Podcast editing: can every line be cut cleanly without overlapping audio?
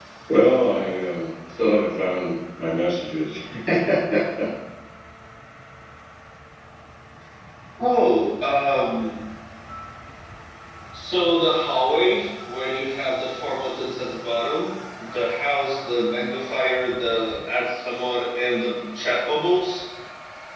Yes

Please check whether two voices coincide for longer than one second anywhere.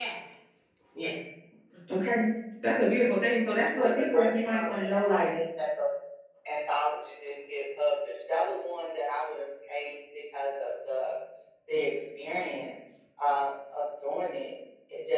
Yes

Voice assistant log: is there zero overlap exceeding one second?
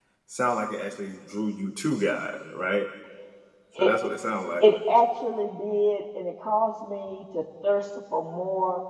Yes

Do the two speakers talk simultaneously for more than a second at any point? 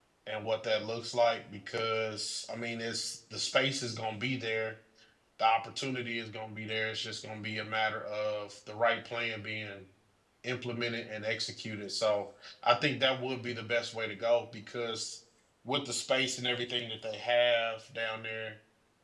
No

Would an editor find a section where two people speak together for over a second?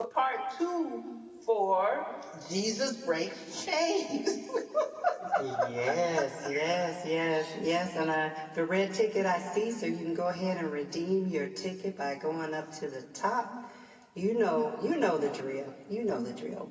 No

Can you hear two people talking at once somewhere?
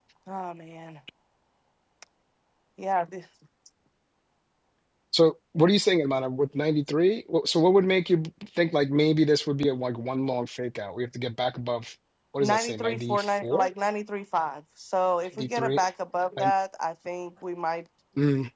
Yes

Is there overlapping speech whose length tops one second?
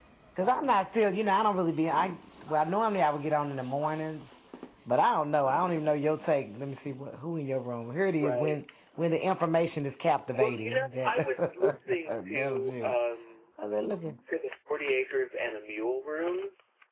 Yes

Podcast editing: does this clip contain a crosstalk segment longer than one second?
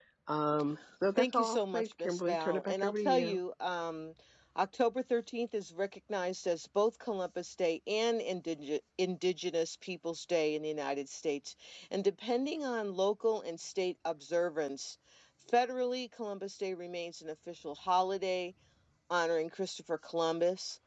Yes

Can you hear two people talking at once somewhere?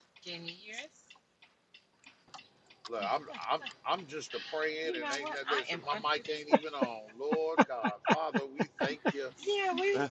Yes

